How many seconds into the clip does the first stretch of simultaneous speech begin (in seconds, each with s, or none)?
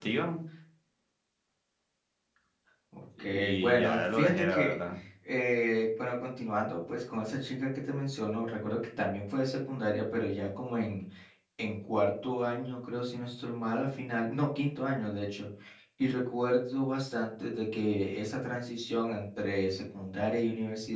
3.2 s